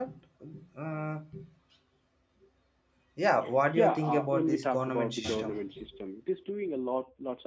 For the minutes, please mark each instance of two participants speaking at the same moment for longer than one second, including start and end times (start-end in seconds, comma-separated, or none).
3.8-5.7